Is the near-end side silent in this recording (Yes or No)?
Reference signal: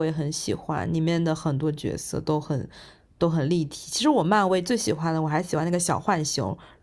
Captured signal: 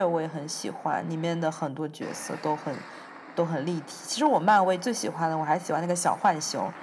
Yes